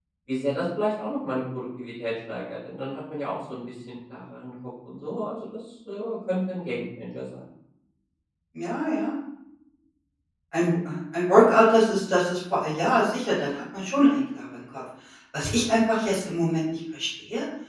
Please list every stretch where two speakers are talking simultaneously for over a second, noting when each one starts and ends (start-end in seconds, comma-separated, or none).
none